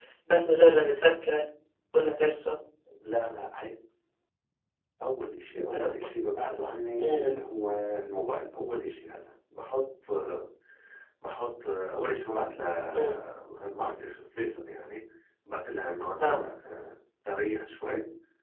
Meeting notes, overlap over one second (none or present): none